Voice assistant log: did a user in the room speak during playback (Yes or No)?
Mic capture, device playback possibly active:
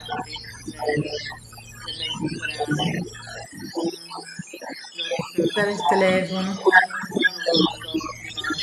Yes